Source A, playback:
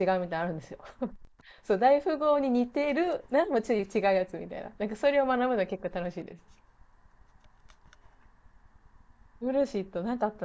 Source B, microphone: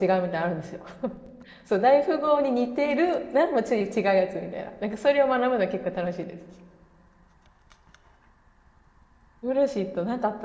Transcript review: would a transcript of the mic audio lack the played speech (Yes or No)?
No